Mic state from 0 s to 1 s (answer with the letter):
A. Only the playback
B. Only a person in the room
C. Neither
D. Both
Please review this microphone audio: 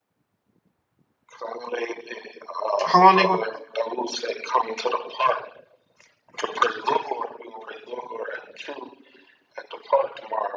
C